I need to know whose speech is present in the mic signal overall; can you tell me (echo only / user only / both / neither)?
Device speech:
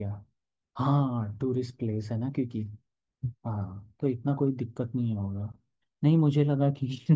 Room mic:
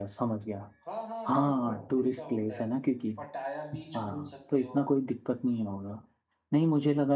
both